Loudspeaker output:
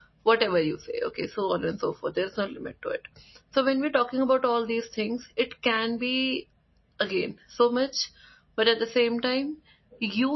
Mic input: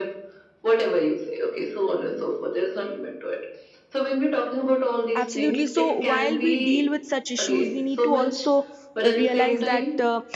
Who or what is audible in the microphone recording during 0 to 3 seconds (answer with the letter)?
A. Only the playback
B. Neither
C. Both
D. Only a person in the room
A